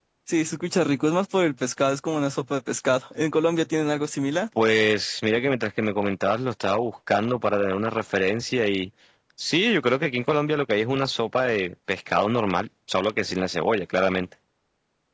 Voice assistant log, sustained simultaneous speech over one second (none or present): none